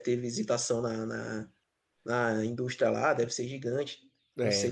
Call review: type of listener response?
taking over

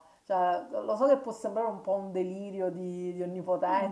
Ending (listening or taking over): taking over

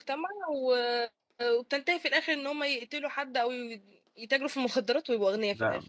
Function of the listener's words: taking over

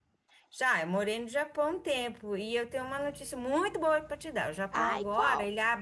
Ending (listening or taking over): listening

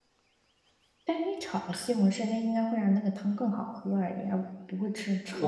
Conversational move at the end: taking over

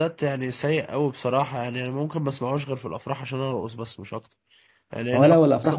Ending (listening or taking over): taking over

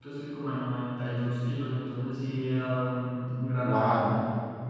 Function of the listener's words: taking over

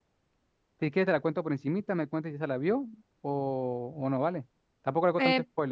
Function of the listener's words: taking over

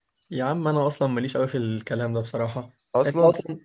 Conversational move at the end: listening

